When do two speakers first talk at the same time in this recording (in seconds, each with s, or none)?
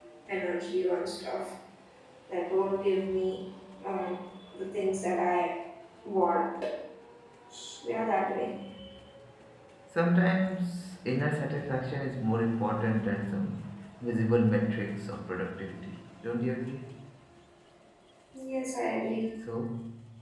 none